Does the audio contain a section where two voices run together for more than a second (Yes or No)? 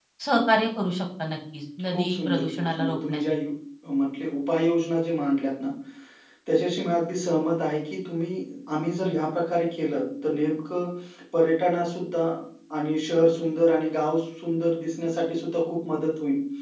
Yes